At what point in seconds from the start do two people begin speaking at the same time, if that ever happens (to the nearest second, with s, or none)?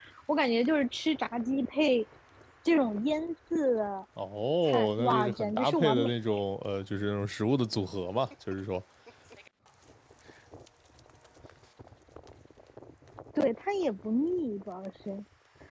5 s